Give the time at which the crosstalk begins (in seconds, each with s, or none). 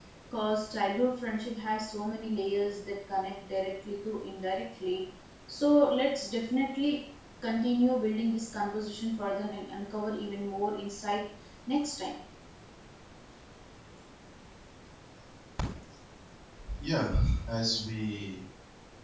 none